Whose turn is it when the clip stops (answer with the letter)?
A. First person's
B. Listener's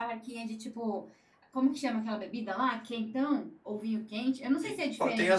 B